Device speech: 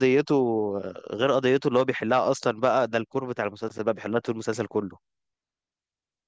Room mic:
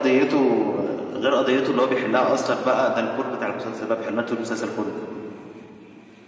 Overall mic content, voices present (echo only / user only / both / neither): echo only